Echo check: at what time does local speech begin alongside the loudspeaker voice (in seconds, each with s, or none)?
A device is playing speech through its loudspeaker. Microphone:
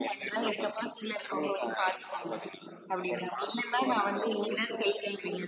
none